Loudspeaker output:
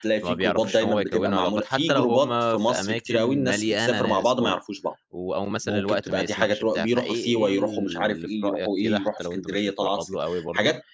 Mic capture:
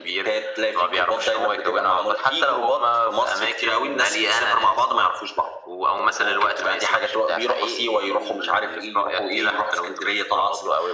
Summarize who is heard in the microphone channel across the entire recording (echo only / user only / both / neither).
echo only